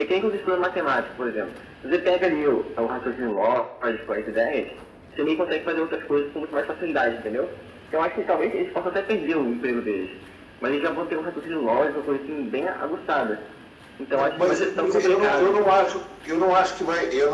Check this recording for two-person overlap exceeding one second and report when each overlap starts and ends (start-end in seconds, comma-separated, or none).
14.1-15.6